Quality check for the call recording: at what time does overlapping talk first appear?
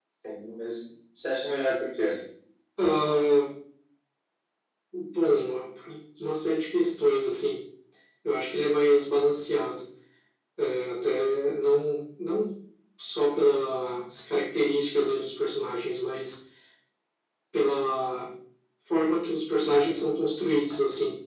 none

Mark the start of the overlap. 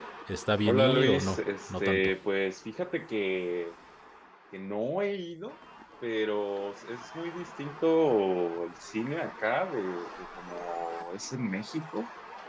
1 s

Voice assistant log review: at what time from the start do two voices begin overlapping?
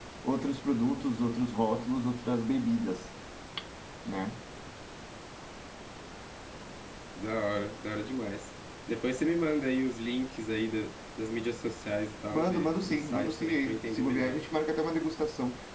12 s

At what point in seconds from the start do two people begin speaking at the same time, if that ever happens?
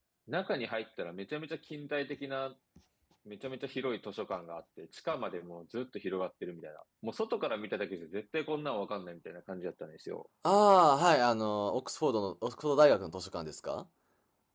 none

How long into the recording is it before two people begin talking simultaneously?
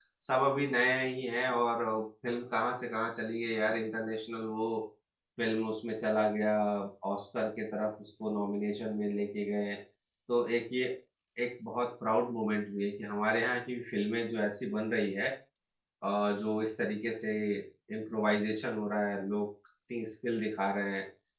none

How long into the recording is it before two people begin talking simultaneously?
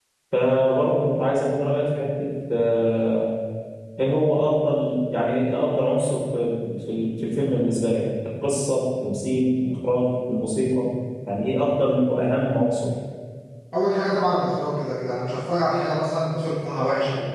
none

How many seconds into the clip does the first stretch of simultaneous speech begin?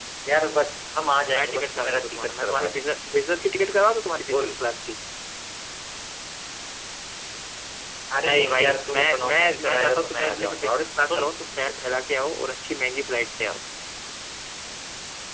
1 s

